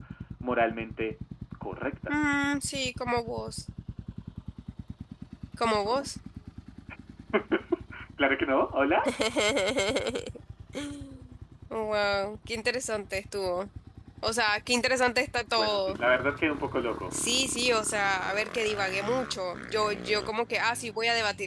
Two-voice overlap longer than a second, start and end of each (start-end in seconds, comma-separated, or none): none